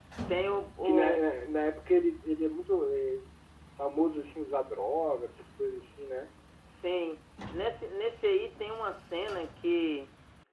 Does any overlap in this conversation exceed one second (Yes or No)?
No